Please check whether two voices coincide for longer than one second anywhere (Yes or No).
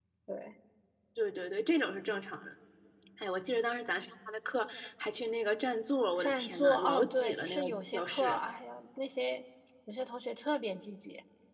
Yes